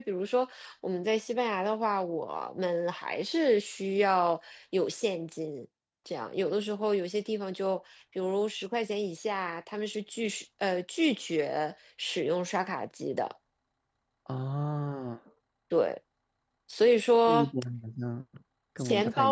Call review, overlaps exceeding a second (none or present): none